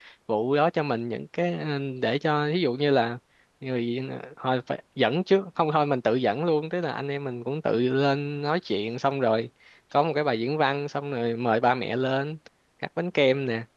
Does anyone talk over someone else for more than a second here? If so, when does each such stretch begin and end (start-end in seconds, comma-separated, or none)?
none